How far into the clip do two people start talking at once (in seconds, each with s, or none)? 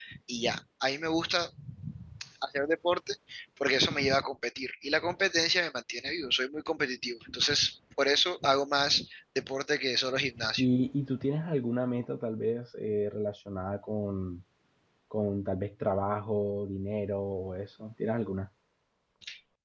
none